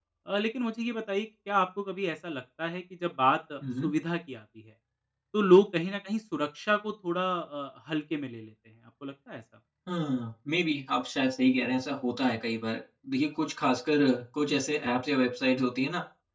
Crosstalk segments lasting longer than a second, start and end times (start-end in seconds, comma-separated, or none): none